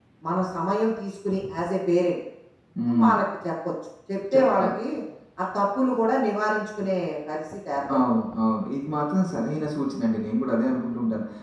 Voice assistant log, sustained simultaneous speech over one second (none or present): none